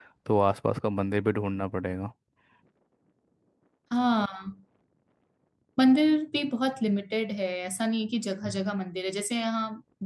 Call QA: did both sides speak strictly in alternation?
Yes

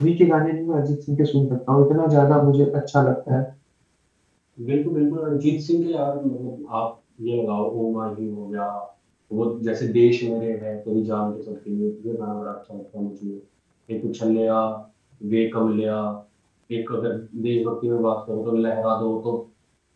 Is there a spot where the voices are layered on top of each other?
No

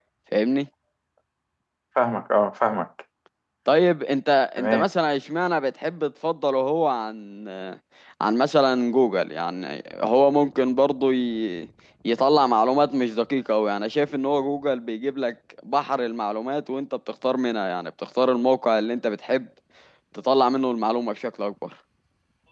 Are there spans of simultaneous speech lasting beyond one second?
No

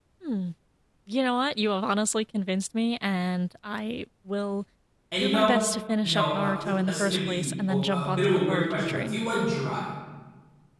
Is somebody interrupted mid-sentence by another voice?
Yes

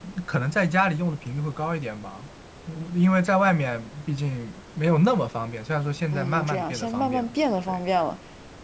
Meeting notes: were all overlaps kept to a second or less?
No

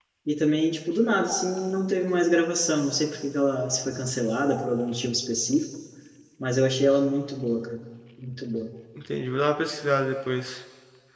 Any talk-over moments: No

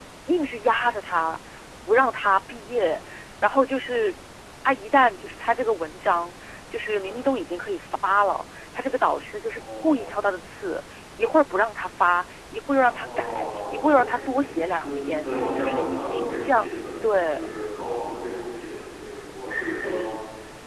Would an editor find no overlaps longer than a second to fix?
No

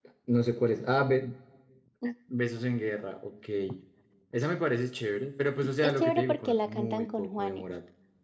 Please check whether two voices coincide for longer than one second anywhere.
Yes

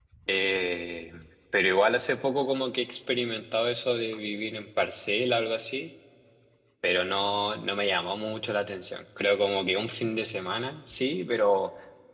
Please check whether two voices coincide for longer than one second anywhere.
No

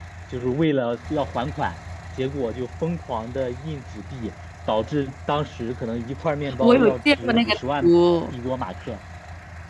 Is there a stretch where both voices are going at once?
Yes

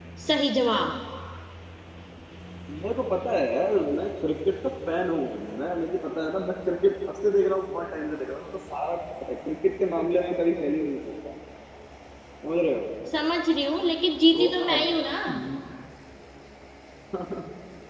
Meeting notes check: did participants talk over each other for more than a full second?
No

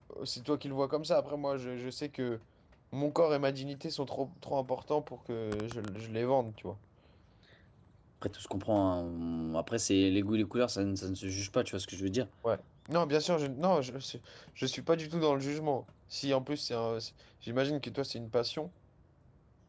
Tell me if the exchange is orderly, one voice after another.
Yes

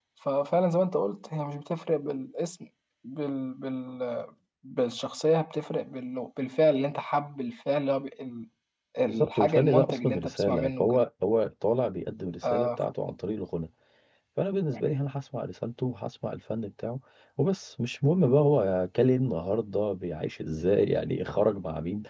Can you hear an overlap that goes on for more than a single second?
Yes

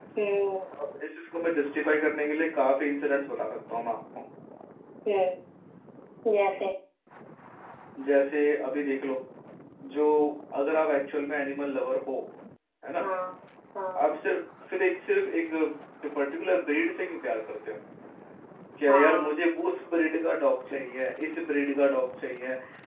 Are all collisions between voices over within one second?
Yes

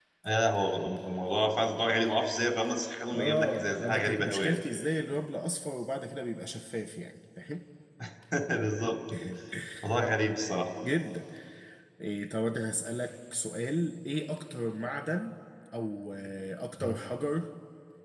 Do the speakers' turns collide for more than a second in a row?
Yes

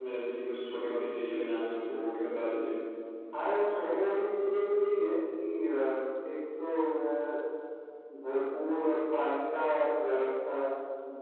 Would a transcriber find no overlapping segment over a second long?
Yes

